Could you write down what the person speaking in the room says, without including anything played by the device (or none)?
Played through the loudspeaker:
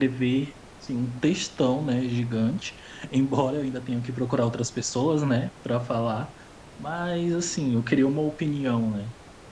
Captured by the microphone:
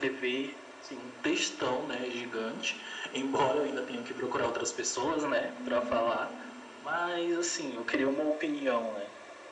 Uhum.